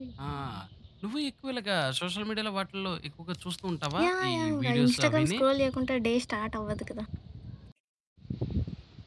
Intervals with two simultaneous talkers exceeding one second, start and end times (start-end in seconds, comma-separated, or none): 4.0-5.4